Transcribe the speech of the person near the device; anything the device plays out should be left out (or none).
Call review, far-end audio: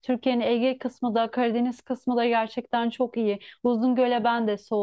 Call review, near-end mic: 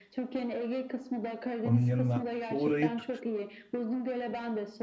Onun yanına uğrayıp